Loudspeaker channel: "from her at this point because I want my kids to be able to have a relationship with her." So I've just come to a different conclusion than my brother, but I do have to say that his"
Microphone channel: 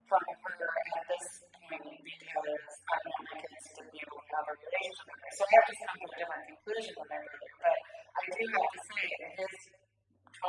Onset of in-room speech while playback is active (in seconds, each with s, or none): none